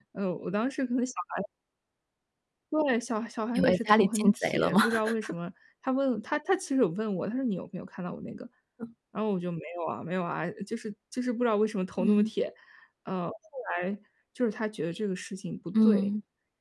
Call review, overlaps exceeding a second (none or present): present